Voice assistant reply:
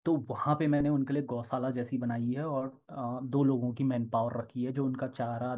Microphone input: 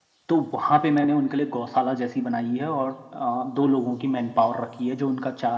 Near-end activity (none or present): none